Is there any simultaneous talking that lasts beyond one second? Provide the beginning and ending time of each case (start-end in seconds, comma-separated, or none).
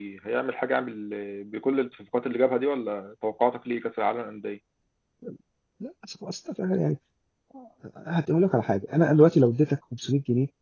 none